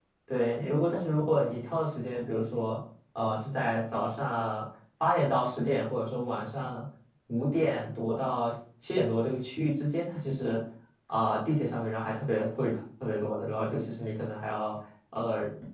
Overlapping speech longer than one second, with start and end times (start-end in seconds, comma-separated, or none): none